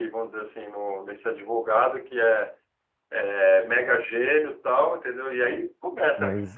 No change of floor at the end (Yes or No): Yes